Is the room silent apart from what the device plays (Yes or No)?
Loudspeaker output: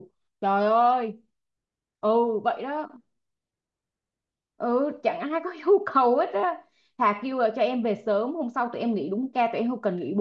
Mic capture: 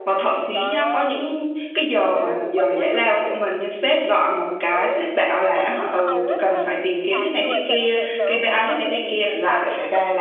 No